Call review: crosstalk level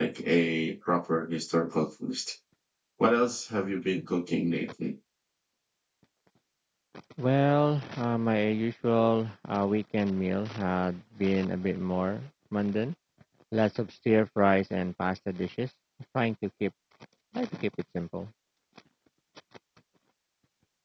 none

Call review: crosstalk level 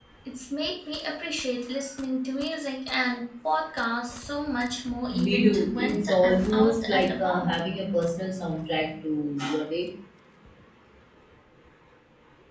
present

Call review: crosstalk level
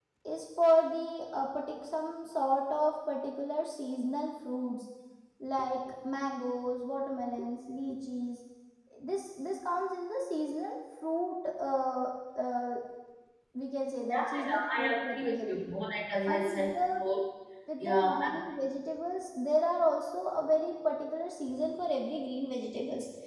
present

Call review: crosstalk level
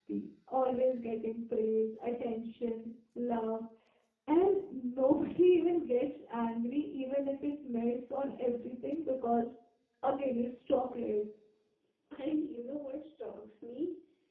none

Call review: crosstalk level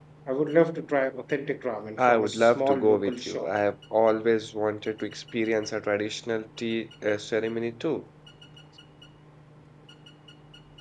present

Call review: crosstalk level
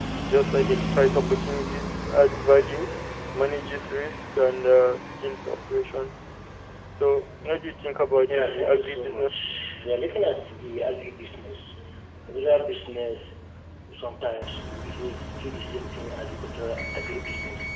present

